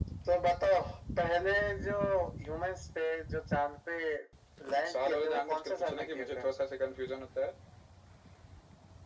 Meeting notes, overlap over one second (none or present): present